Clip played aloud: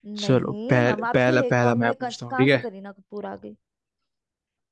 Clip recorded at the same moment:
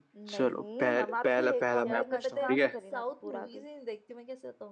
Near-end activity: present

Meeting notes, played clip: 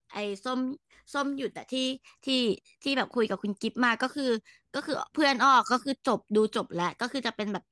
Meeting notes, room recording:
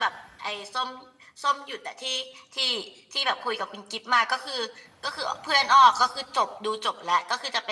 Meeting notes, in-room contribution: none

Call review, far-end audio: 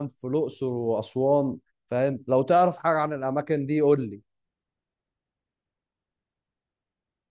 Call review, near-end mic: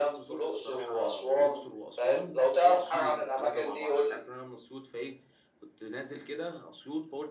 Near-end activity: present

